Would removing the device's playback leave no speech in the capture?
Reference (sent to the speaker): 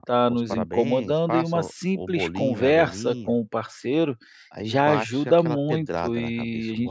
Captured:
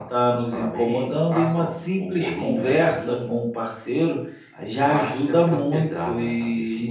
Yes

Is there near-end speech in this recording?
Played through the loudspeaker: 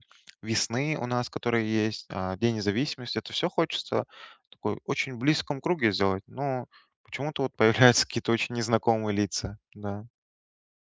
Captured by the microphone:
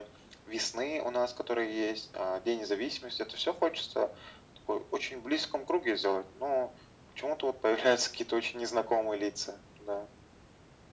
No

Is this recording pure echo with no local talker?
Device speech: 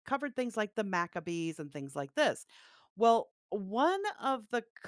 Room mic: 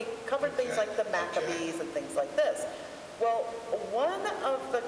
No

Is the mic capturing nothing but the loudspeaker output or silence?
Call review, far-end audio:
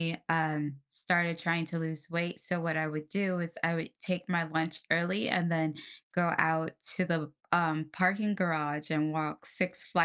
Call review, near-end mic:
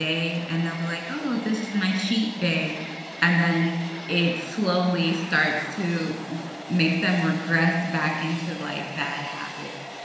No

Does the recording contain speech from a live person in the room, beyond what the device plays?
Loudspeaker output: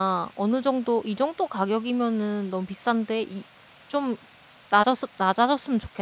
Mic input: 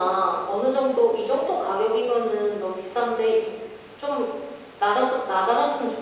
No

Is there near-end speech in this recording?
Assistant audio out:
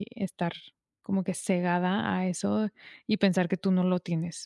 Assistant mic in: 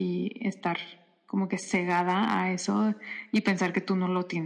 No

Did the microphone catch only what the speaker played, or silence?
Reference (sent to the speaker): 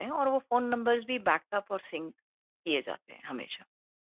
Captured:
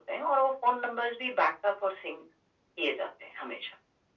Yes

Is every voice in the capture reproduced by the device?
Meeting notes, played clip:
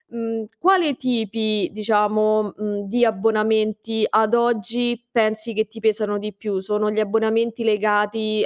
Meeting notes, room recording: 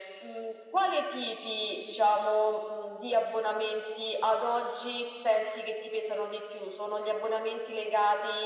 Yes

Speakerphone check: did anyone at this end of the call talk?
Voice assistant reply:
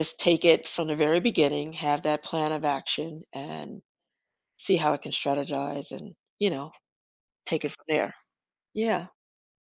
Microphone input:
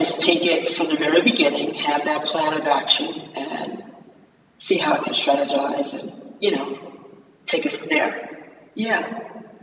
No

